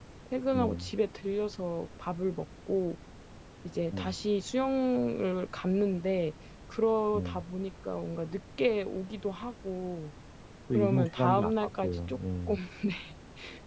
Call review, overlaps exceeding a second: present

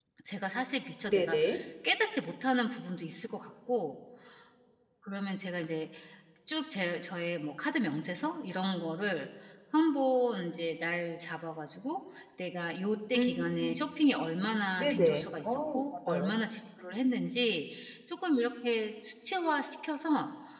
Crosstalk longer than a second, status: present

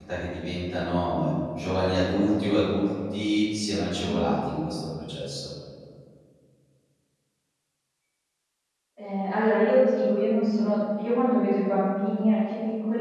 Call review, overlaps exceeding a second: none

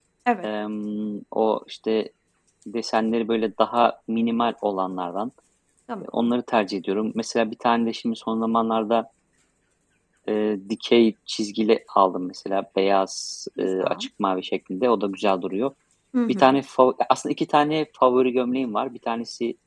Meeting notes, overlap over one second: none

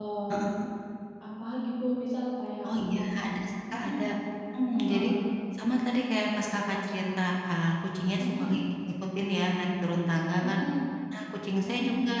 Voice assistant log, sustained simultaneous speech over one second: none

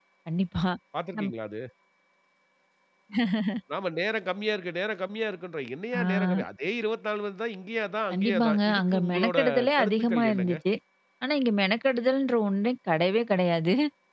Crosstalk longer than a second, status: present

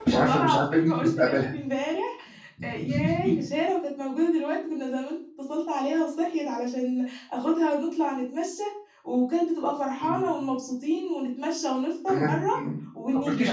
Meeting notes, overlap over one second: present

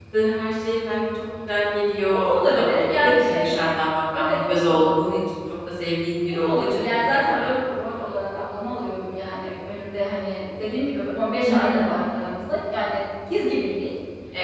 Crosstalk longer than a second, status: present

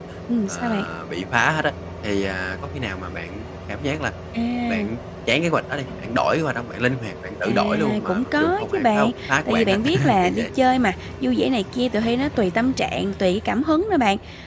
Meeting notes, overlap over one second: present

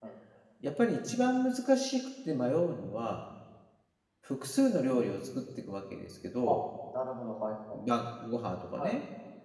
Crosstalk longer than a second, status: none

